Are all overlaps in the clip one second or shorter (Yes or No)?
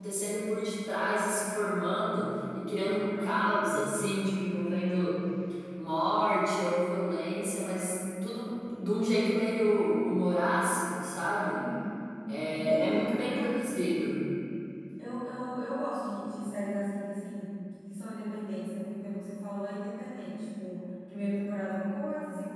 No